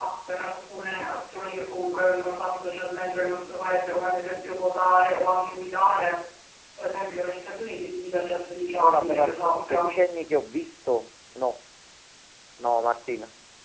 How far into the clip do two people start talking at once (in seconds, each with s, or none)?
8.7 s